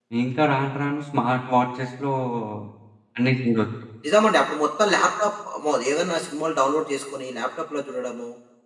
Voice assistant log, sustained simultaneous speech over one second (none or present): none